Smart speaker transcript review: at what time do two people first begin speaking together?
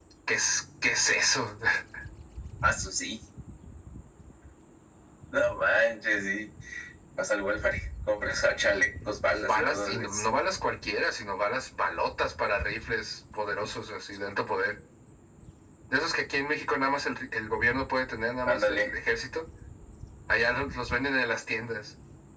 9 s

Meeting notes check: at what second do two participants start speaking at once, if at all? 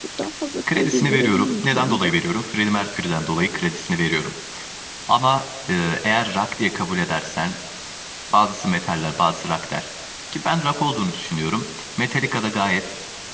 1 s

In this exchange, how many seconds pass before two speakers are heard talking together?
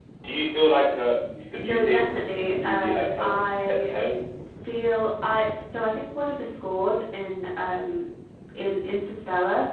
2 s

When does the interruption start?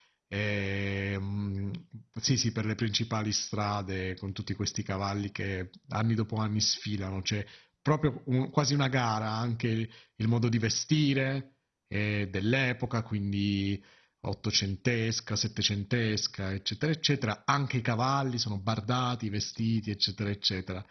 none

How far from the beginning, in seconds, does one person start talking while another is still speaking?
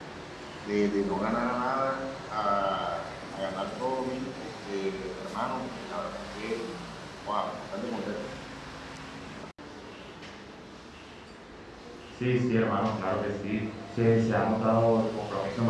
none

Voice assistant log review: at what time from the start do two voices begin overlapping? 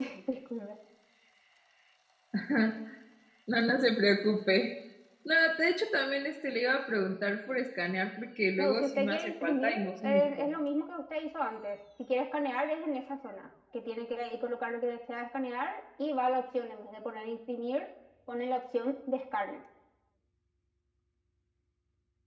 9 s

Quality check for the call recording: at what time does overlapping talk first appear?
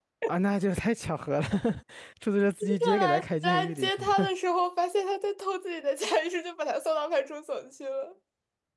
3 s

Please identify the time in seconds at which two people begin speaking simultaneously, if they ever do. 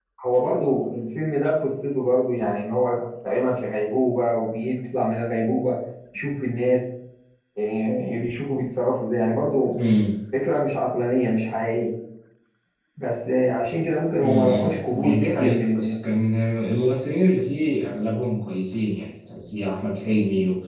14 s

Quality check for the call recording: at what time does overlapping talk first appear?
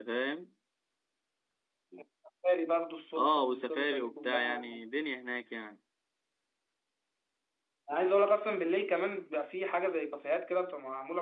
3 s

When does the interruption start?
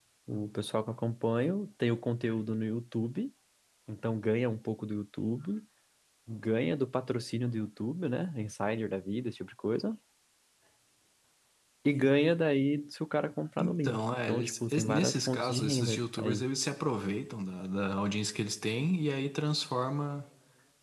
14 s

